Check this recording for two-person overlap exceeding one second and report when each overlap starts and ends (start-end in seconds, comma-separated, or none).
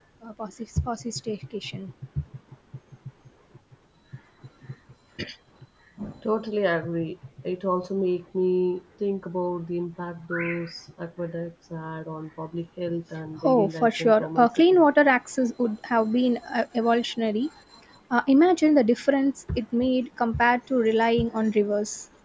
13.4-14.8